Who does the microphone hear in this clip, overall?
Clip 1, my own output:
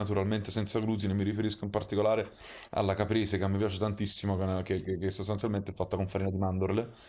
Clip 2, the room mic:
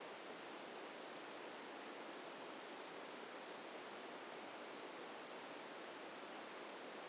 neither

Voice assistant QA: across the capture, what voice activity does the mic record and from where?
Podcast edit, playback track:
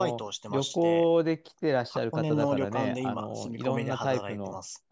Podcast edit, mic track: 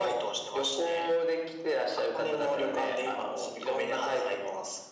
echo only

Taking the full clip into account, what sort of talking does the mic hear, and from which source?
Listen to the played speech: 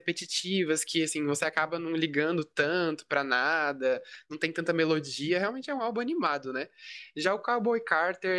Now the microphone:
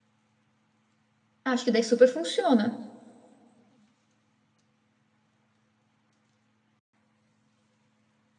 user only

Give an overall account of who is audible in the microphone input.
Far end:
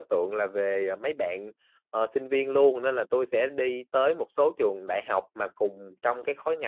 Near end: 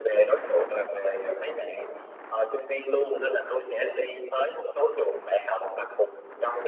echo only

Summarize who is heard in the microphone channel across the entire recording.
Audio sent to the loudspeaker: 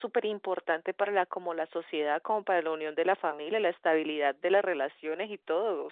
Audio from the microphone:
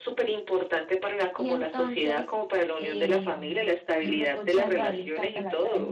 both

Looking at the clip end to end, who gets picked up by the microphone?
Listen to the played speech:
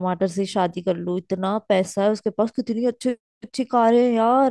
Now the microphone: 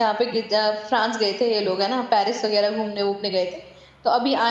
user only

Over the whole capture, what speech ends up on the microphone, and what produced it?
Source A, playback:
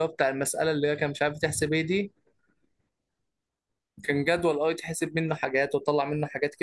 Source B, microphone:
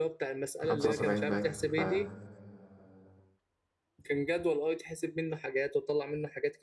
both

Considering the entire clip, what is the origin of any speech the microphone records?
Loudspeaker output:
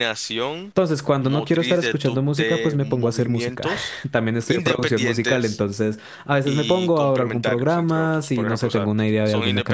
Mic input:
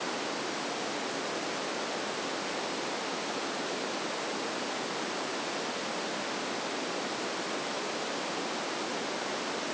neither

